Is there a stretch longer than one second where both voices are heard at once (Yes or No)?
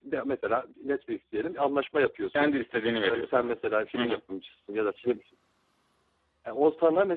No